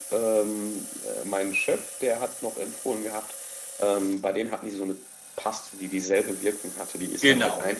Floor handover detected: Yes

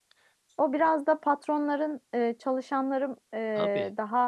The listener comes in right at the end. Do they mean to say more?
No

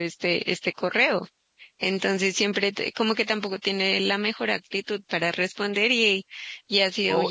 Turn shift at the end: Yes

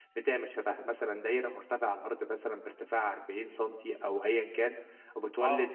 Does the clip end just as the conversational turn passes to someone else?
No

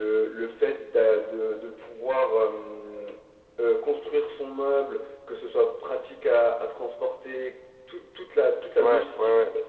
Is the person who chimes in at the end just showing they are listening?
Yes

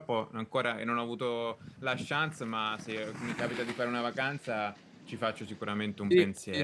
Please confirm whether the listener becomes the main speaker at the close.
Yes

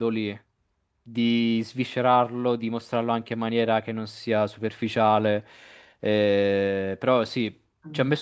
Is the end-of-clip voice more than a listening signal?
No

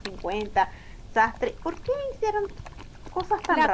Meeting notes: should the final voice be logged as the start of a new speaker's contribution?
Yes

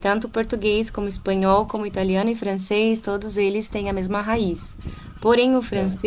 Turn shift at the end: No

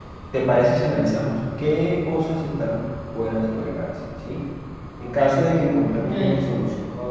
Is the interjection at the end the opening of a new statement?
No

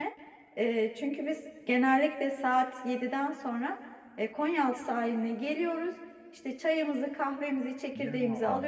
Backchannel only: Yes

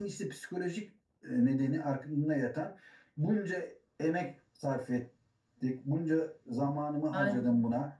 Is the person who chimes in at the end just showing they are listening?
Yes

